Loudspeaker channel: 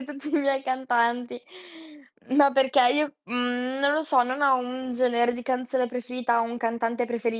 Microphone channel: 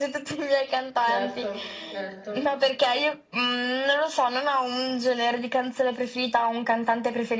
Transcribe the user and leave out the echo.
Certo, certo.

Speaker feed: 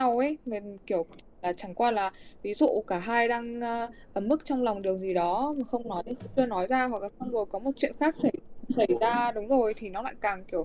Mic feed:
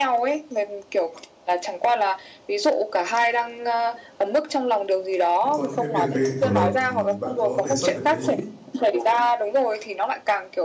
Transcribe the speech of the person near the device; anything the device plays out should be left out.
những có những cái việc gây hiểu lầm. Thì bạn có đề xuất được cái

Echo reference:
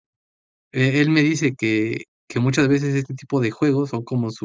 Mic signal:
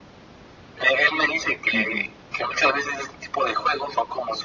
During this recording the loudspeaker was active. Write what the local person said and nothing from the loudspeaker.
Ujú.

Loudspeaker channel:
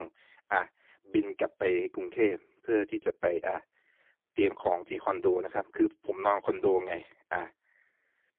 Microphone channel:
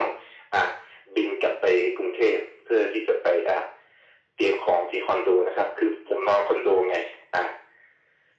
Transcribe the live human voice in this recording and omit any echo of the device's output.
none

